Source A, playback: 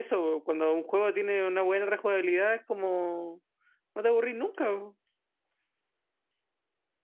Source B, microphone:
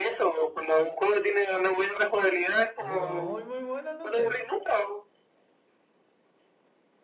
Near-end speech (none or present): present